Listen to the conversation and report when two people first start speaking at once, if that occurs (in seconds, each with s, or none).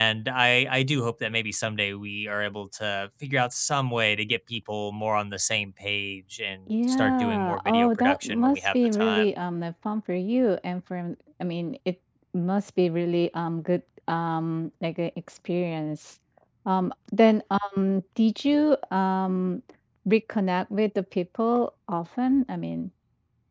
6.7 s